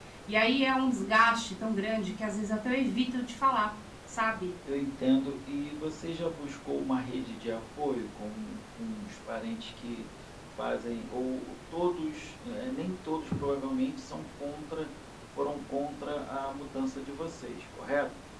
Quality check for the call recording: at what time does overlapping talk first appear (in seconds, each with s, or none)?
none